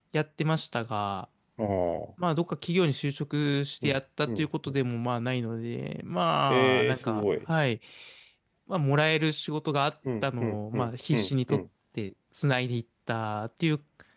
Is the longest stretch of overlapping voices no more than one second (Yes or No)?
No